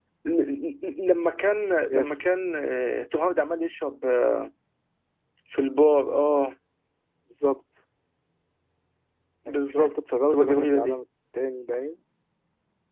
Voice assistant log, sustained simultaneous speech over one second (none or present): present